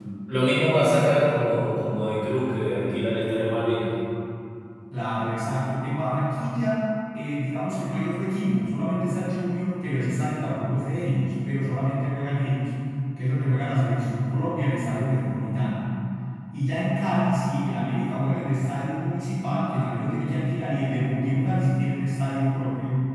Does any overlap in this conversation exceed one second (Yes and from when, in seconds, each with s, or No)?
No